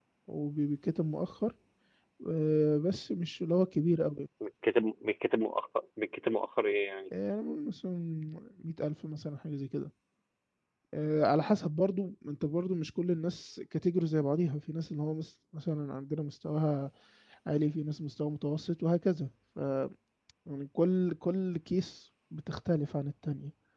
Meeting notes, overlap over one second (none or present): none